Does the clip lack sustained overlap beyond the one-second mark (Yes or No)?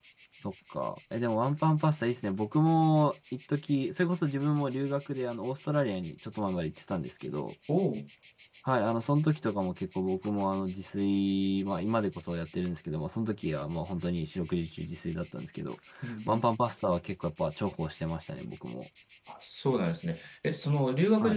Yes